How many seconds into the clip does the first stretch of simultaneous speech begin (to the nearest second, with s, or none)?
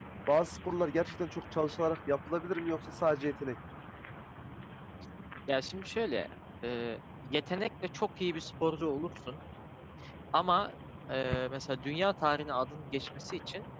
none